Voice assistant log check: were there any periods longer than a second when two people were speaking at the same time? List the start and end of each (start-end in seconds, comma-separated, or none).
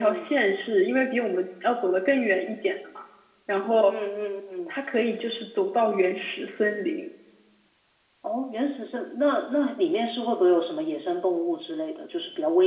none